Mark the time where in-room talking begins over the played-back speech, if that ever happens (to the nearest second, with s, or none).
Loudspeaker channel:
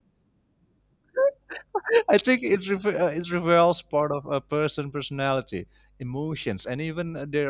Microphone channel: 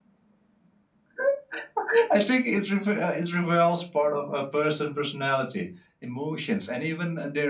none